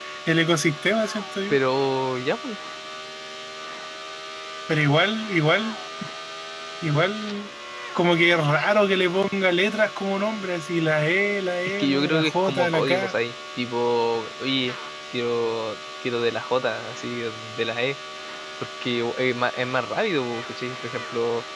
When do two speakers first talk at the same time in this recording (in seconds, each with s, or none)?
11.8 s